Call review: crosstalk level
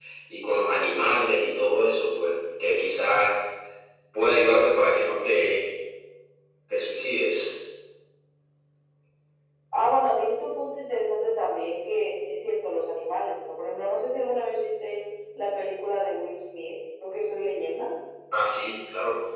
none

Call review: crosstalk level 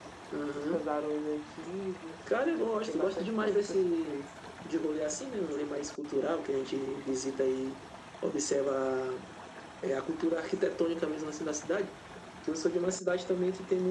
present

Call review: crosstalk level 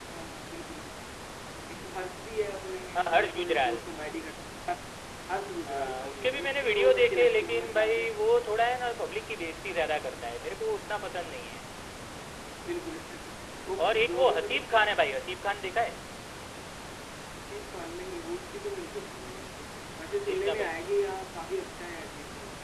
present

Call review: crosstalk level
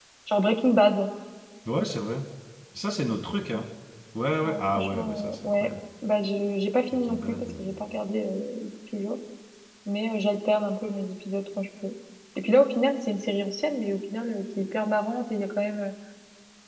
present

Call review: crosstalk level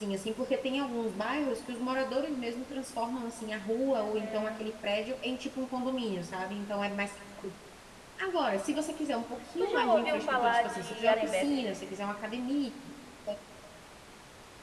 present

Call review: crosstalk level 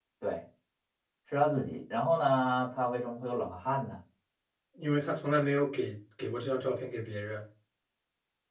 none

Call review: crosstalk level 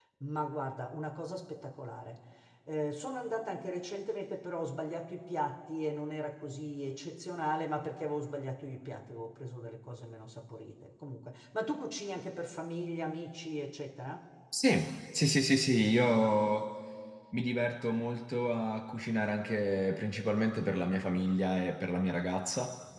none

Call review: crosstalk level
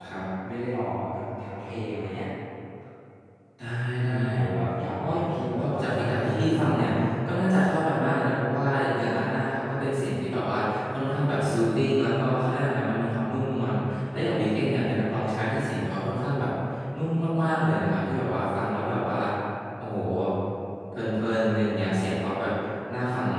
present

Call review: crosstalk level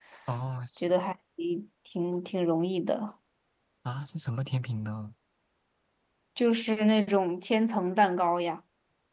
none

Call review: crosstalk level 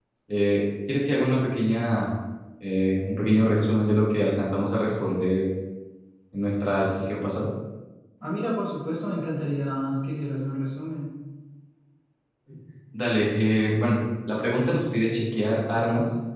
none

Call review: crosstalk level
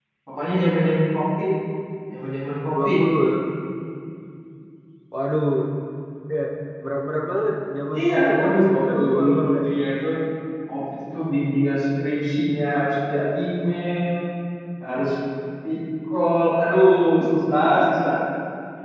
present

